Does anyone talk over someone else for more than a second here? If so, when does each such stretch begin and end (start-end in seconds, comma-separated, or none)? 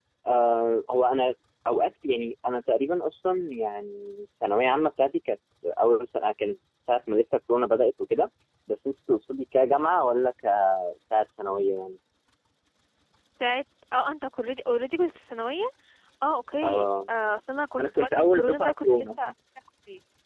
17.8-19.2